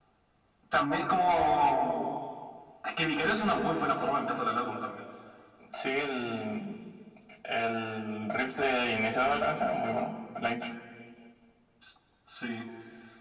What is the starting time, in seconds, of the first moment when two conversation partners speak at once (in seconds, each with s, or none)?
none